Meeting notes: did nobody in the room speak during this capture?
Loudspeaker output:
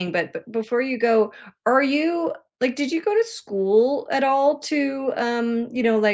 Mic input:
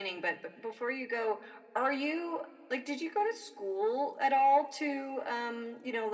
Yes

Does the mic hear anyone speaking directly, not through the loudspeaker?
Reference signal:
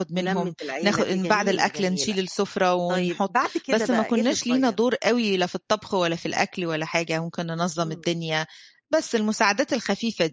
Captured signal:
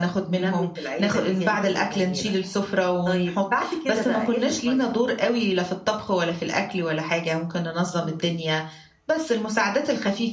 No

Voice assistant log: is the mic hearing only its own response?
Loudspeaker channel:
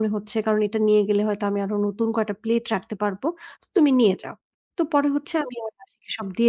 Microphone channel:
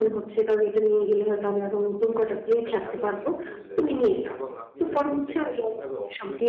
No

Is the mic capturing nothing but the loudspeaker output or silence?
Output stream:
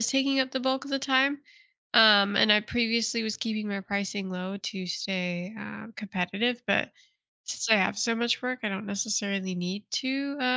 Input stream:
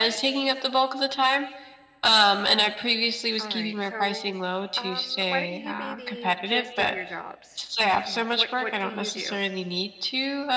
No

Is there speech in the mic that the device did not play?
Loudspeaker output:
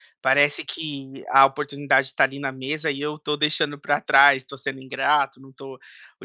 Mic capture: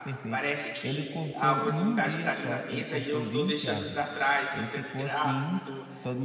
Yes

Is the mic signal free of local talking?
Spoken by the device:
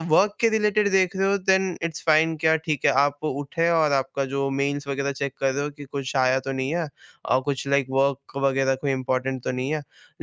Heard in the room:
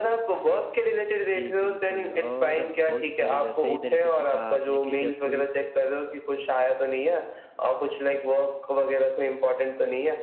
No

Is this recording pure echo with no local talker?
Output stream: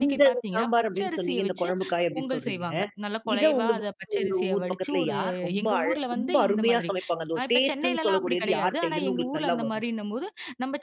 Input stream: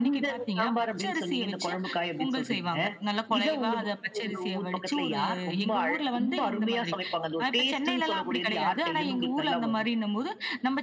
Yes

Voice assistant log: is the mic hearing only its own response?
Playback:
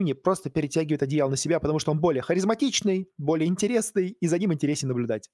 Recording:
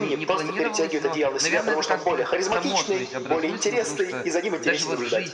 No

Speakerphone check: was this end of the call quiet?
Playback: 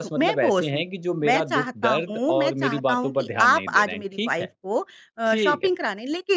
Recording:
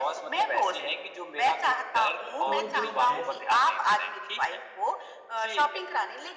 No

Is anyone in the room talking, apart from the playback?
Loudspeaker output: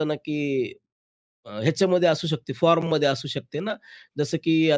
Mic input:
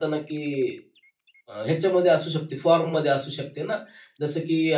No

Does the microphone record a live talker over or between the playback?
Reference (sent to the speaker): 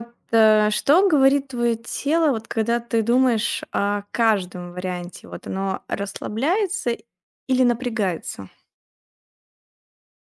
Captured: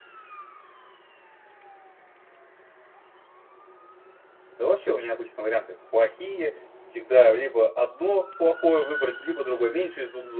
Yes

